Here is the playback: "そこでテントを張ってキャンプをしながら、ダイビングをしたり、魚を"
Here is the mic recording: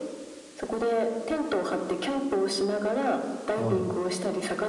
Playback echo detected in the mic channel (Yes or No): Yes